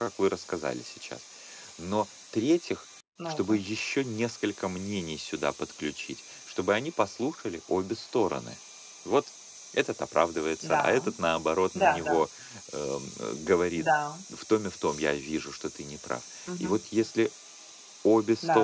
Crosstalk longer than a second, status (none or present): none